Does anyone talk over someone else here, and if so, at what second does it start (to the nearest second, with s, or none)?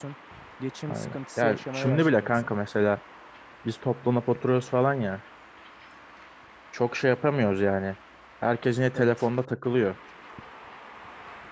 1 s